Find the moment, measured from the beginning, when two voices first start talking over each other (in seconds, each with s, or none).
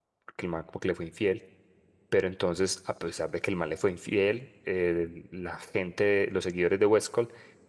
none